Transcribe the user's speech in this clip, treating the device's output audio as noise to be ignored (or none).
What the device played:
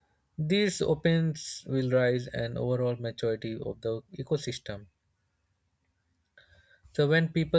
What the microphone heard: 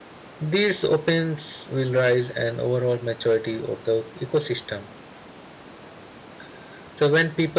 none